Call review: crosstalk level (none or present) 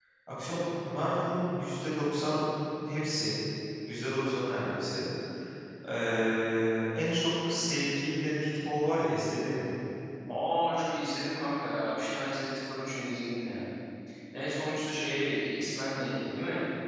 none